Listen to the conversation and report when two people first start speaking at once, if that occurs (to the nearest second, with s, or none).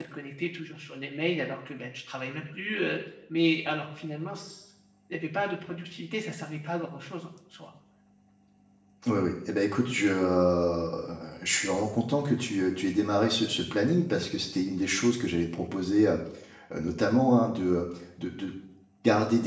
none